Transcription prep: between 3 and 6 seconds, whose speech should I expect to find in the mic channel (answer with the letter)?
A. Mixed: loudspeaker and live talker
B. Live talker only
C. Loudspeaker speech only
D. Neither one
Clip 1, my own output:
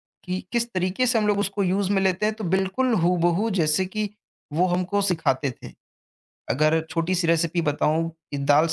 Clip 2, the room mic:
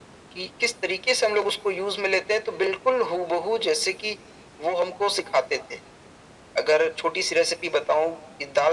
C